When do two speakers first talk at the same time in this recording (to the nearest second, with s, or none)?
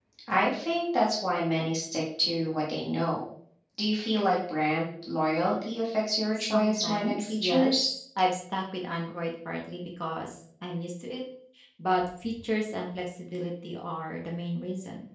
6 s